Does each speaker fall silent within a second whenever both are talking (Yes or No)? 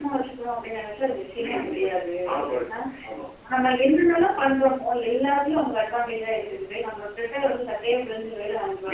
Yes